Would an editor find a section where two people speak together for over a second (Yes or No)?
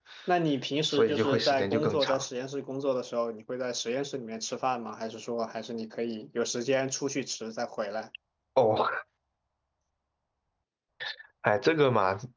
Yes